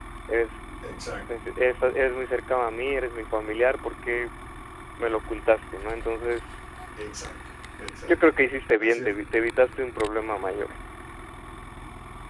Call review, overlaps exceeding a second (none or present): none